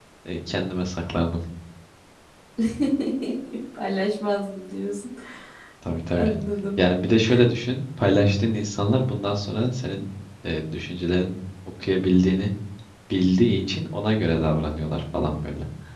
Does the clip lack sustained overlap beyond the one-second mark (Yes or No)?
Yes